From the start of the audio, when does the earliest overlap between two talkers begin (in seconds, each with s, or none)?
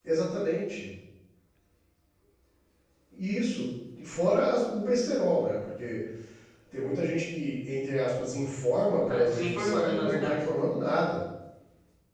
9.1 s